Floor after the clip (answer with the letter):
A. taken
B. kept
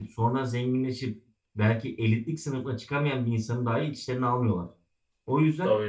B